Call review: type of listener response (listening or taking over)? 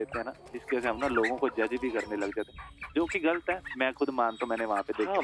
taking over